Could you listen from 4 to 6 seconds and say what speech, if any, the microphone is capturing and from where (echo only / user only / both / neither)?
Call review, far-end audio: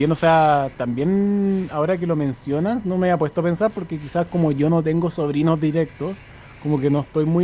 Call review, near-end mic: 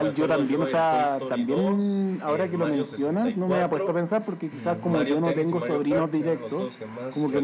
both